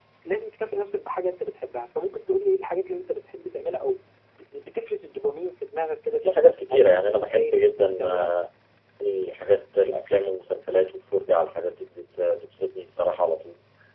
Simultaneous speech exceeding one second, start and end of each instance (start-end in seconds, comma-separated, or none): 6.2-8.3